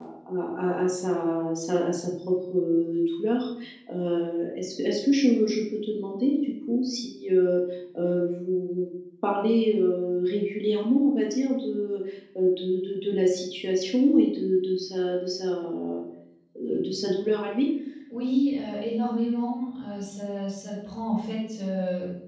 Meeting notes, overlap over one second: none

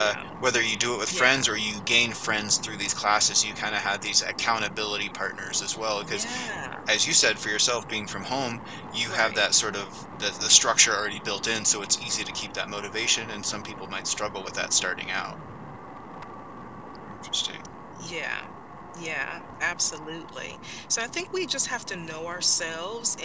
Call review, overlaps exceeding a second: none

